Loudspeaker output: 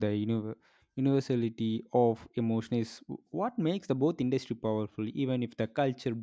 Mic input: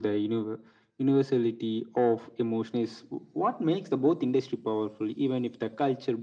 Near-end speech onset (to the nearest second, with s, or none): none